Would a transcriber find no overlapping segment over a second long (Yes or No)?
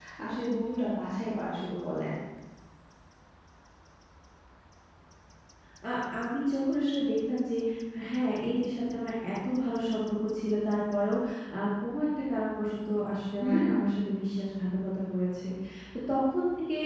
Yes